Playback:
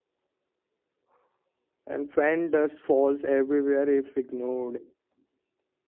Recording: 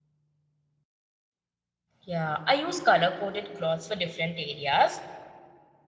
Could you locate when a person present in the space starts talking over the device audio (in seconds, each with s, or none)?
2.0 s